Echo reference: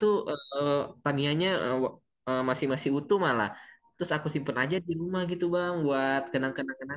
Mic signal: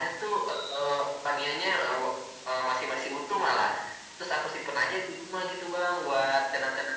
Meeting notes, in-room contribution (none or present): none